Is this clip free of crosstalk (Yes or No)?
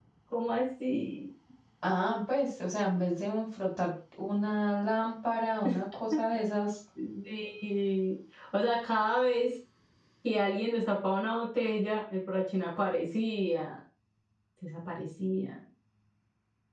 Yes